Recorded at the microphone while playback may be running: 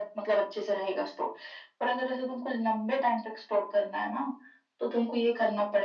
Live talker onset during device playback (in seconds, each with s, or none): none